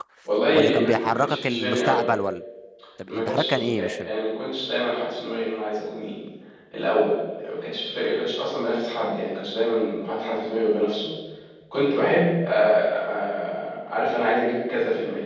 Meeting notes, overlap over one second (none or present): present